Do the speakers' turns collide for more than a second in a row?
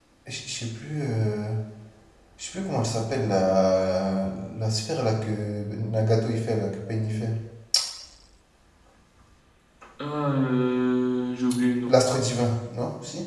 No

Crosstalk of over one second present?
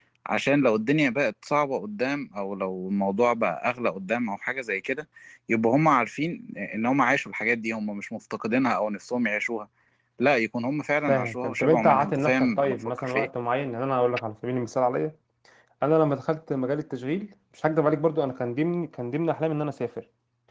Yes, from 11.1 s

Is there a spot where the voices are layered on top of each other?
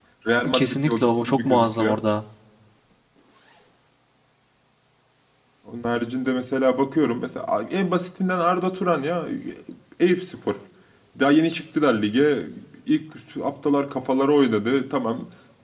Yes, from 0.5 s

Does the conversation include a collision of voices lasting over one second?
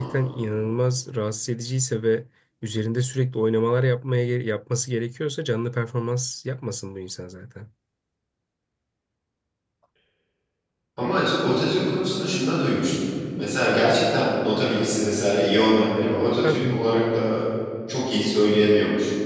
No

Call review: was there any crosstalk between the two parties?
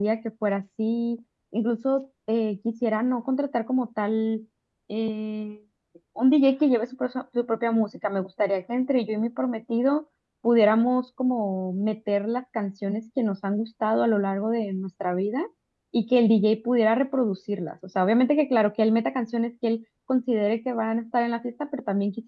No

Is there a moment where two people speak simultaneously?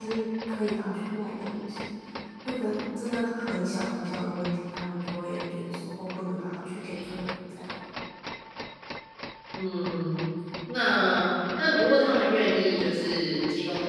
No

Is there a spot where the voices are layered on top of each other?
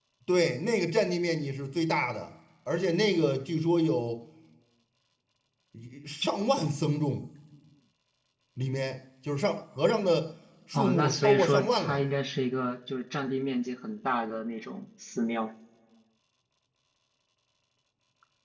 Yes, from 10.7 s

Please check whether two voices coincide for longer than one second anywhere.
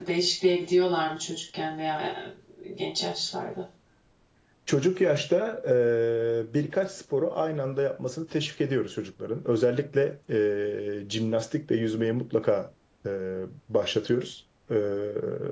No

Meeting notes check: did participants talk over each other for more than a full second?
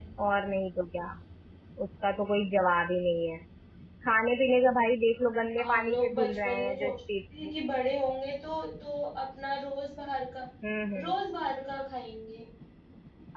Yes, from 5.6 s

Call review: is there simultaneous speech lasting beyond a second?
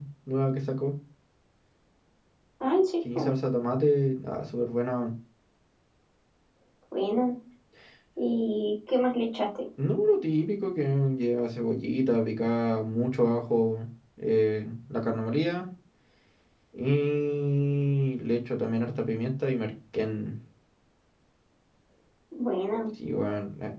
No

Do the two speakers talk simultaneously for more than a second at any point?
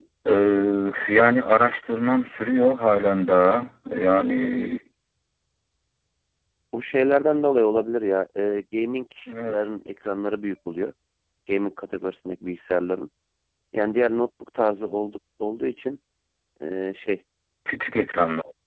No

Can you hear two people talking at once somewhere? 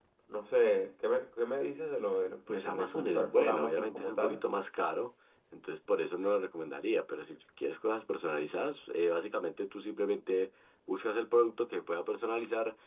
Yes, from 2.5 s

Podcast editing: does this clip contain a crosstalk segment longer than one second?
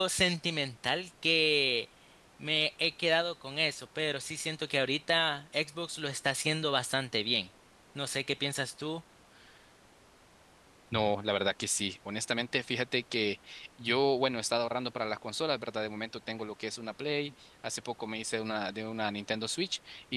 No

